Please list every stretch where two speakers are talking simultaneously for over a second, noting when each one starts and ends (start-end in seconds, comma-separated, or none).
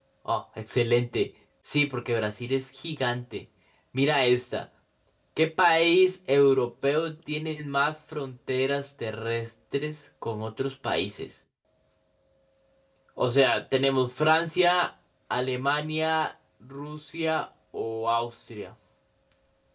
none